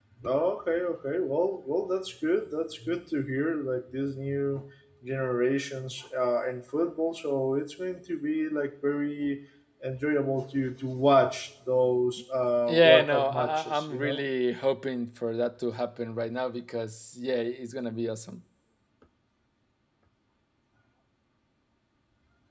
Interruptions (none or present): present